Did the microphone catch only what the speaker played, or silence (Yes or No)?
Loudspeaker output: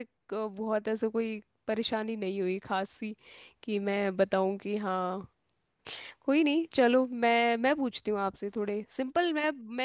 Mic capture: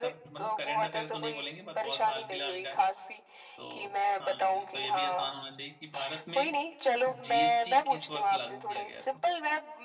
No